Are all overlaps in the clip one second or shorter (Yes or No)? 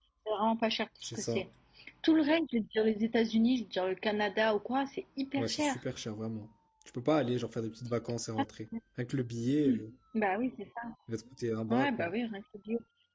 Yes